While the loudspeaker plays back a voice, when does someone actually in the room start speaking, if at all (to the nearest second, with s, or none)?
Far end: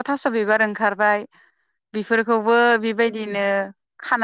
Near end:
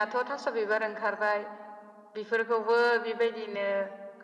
none